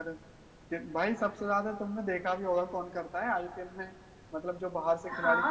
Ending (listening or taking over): taking over